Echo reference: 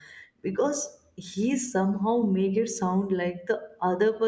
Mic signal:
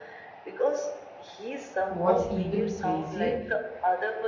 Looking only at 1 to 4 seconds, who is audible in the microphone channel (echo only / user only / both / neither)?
both